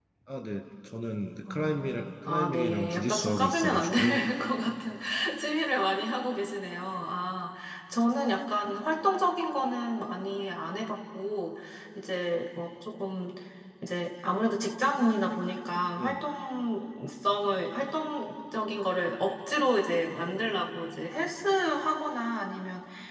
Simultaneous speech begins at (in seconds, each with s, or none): 1.5 s